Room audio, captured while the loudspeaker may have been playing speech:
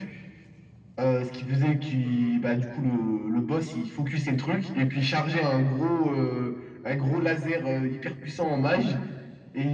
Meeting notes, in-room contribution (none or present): present